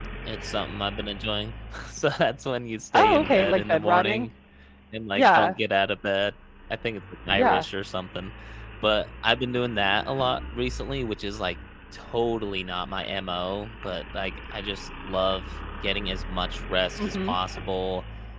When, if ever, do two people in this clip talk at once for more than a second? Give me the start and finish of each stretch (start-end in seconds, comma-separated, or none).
2.9-4.3